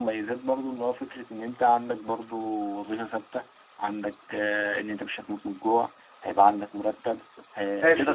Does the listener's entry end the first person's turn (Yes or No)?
Yes